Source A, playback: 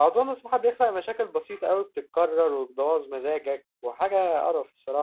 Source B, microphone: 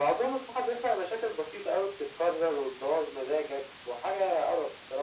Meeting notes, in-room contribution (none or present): none